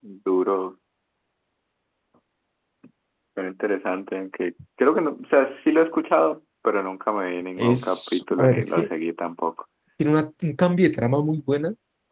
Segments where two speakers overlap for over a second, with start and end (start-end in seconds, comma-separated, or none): 7.6-8.9